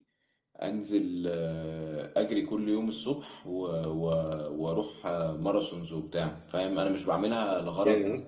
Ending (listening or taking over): listening